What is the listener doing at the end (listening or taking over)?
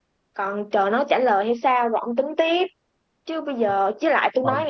listening